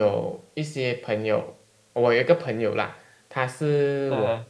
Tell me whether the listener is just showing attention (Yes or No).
Yes